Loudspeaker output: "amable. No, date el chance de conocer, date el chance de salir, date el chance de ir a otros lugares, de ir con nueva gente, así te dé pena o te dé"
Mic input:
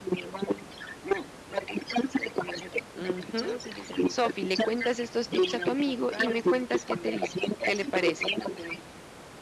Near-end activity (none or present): present